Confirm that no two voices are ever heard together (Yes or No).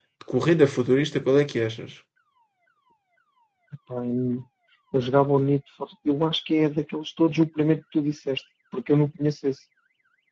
Yes